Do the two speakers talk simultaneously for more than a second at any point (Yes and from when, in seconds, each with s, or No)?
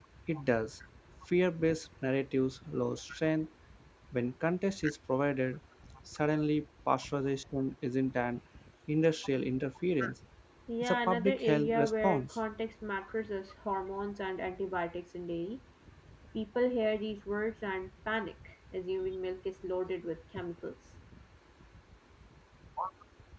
Yes, from 10.8 s